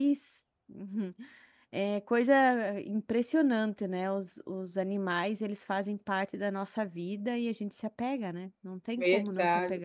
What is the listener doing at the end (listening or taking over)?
taking over